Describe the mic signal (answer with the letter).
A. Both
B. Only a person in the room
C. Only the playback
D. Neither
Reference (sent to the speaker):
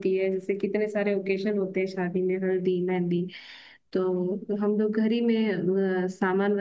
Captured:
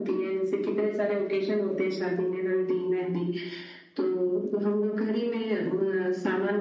C